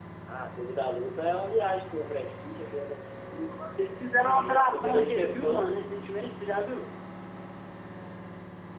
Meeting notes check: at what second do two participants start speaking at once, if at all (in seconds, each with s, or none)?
4.2 s